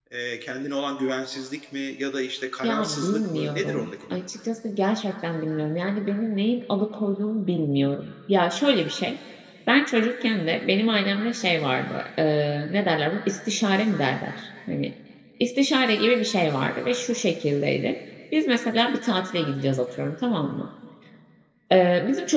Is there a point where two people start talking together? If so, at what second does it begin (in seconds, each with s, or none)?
2.6 s